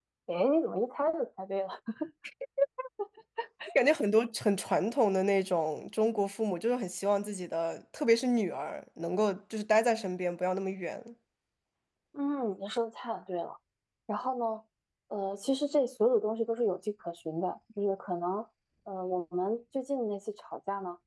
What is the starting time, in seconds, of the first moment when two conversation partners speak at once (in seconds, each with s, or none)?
none